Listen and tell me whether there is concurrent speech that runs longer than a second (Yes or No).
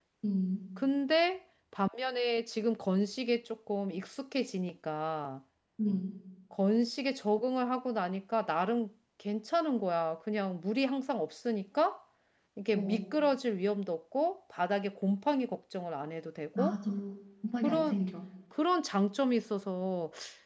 No